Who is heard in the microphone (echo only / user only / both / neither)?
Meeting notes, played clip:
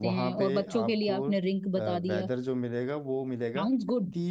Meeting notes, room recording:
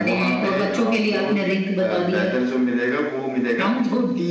echo only